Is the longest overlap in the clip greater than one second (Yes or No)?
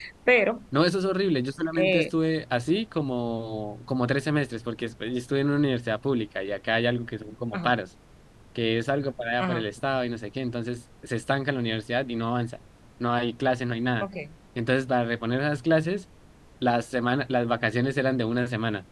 No